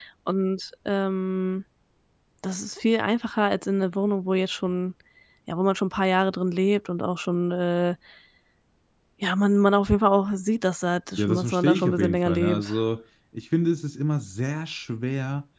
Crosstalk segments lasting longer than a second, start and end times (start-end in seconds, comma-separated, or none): 11.2-12.7